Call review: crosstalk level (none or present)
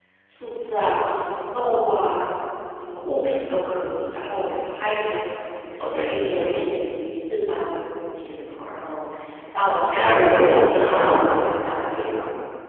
present